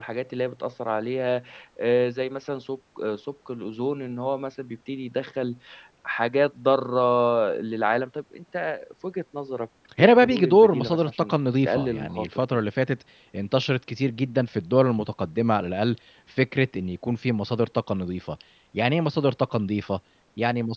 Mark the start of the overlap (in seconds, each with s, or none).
10.0 s